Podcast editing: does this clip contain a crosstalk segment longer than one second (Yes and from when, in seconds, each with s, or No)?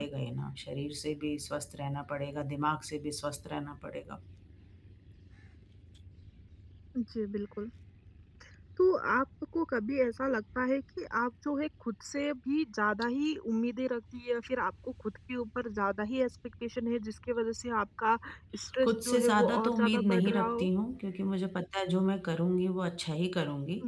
Yes, from 18.8 s